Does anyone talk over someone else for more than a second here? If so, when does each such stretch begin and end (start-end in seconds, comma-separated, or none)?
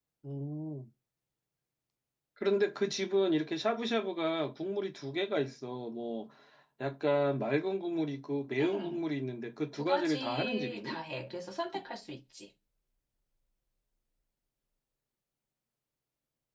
9.7-11.0